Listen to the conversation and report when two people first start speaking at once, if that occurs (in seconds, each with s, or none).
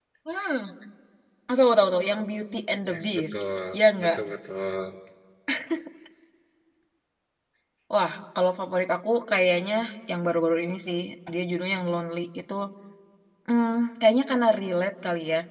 2.9 s